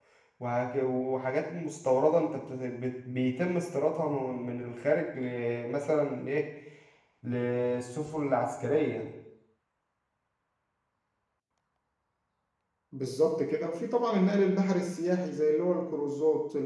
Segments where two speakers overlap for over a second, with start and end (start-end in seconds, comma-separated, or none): none